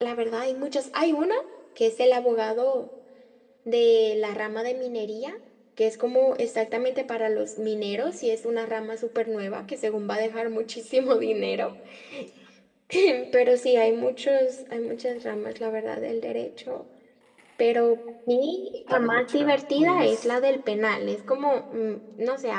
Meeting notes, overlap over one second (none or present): present